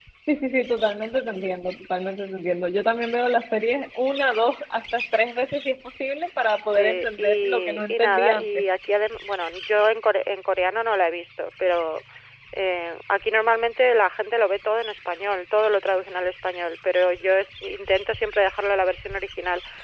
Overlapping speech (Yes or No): Yes